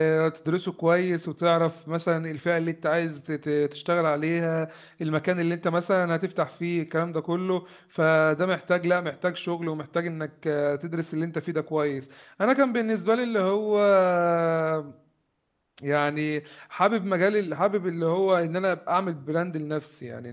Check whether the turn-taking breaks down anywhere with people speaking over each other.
No

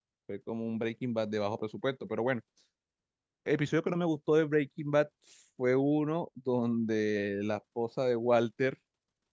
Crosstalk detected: No

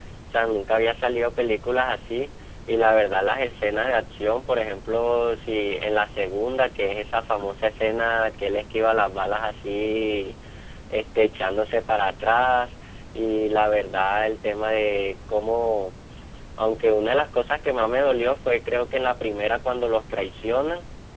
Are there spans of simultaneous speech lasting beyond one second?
No

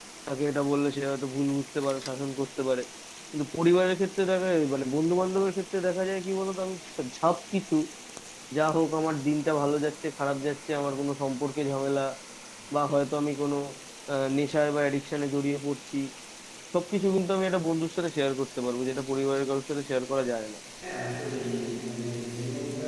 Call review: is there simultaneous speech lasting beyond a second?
No

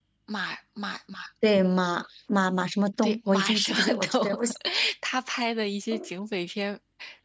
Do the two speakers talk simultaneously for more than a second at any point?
Yes, from 3.0 s

